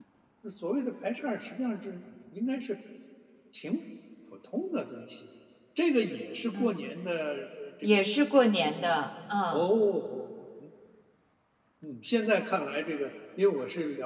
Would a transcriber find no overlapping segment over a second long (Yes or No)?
Yes